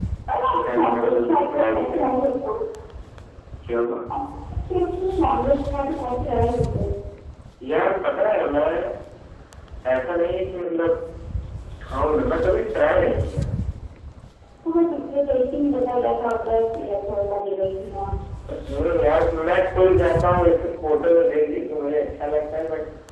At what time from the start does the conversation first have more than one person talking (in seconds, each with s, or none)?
0.7 s